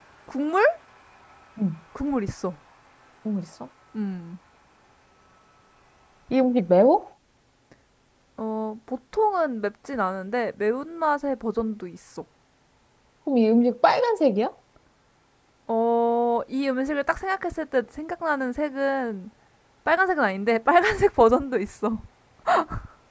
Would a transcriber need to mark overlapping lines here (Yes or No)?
No